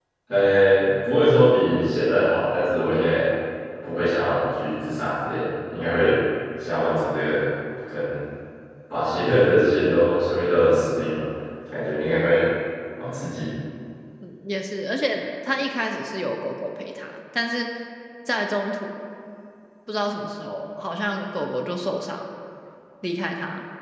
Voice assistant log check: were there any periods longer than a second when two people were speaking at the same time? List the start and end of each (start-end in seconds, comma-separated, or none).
none